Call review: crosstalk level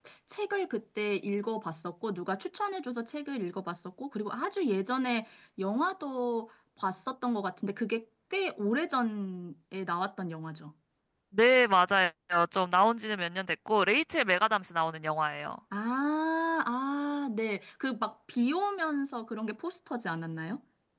none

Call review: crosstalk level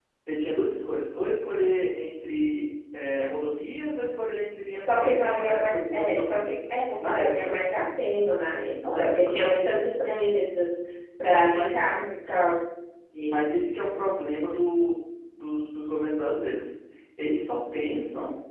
present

